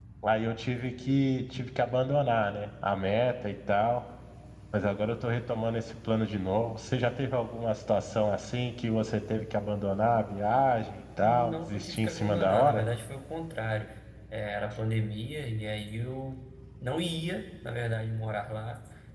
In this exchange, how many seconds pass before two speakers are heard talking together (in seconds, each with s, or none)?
11.2 s